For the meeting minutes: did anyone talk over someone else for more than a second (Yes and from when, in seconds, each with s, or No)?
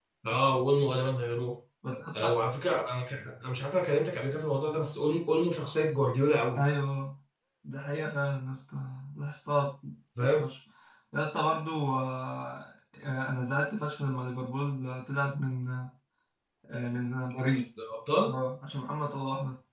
No